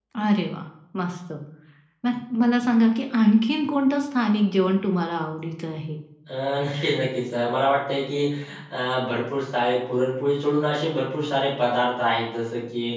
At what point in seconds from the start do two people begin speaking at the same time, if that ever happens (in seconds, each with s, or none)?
none